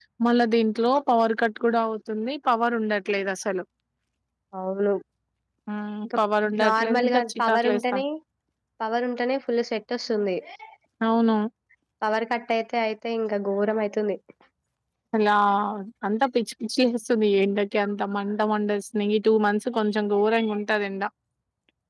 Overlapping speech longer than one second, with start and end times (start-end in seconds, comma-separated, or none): 6.7-8.0